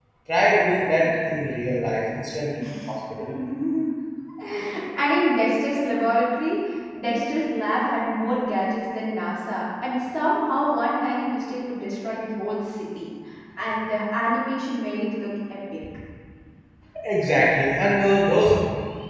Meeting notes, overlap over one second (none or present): none